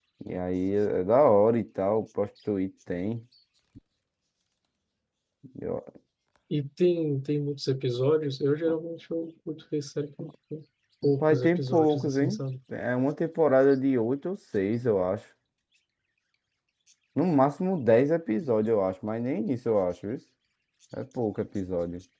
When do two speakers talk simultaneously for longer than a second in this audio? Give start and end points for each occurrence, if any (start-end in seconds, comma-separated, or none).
11.2-12.4